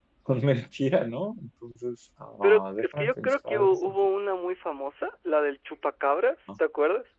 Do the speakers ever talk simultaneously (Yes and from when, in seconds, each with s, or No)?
Yes, from 2.4 s